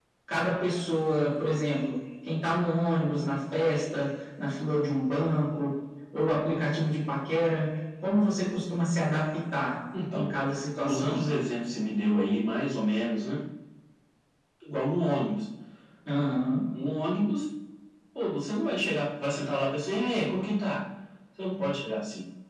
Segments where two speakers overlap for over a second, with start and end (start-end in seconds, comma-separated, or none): none